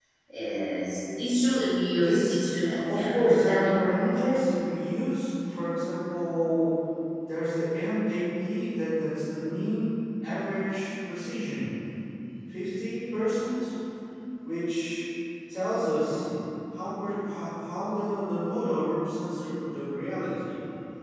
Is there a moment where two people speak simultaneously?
Yes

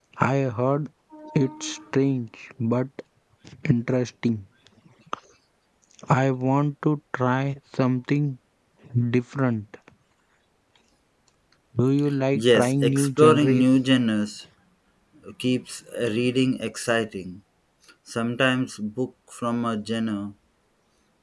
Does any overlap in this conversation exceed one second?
Yes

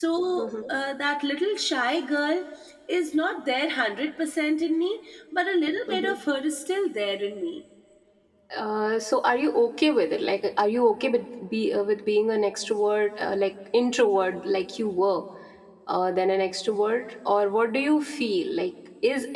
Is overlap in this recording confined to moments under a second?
Yes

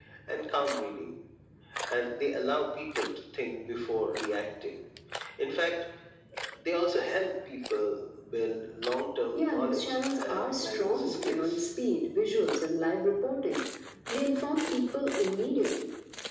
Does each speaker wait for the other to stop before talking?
No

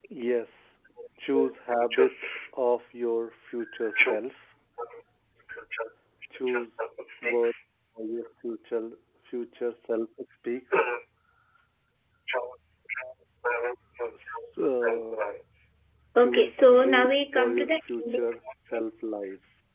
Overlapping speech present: Yes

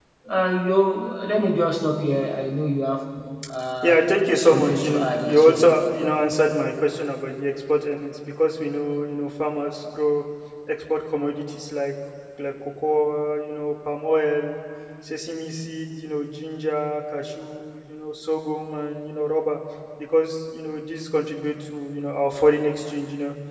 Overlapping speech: Yes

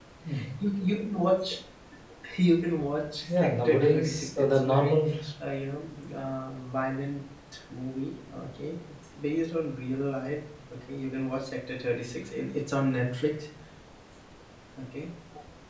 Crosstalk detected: Yes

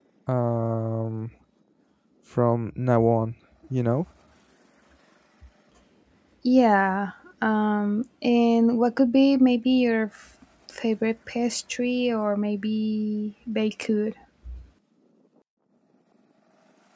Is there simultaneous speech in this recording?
No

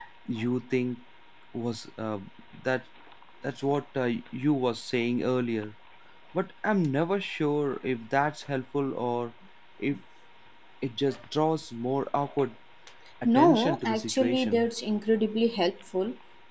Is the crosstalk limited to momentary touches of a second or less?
No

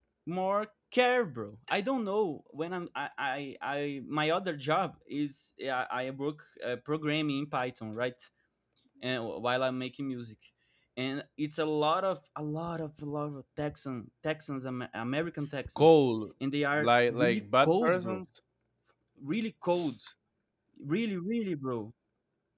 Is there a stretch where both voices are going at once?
Yes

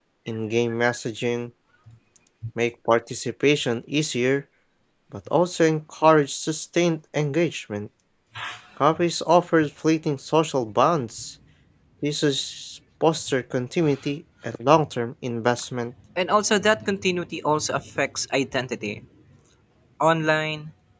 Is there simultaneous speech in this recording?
No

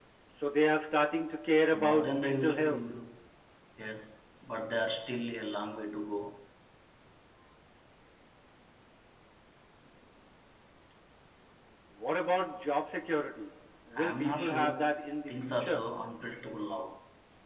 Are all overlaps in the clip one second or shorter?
No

